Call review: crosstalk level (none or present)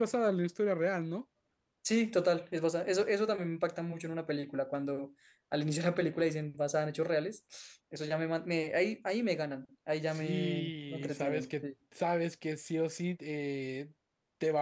present